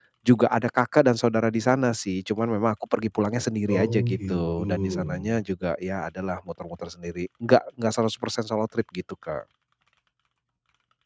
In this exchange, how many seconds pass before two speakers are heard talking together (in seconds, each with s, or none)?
3.7 s